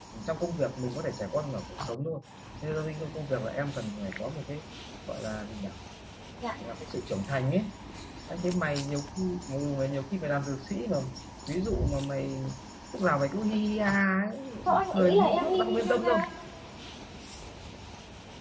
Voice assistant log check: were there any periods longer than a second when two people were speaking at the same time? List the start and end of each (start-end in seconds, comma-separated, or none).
14.9-16.2